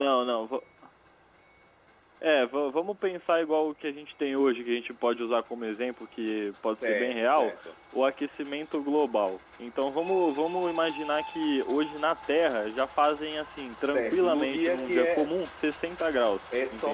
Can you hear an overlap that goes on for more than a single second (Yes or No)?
Yes